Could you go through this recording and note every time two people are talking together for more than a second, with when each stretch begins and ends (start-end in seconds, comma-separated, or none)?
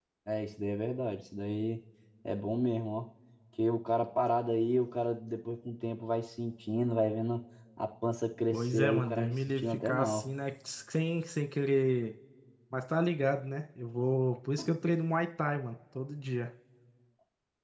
8.5-10.2